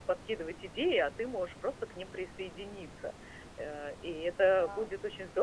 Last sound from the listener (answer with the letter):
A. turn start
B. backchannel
B